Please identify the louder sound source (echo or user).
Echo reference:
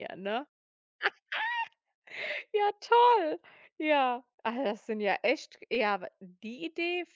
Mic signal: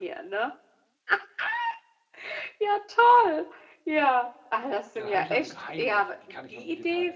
echo